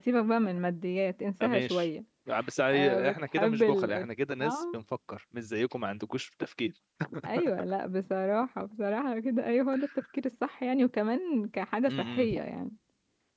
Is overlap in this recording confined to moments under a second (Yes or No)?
No